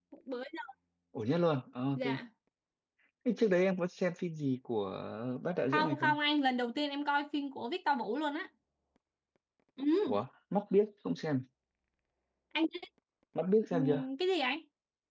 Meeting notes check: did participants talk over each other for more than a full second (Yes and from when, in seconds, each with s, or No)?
No